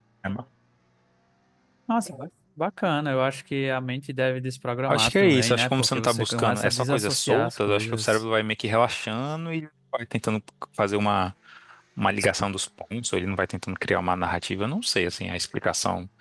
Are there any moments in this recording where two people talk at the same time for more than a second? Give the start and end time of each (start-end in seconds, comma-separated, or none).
4.9-8.2